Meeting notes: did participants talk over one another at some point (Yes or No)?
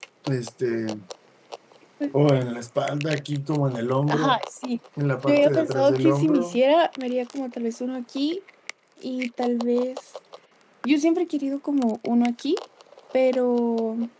Yes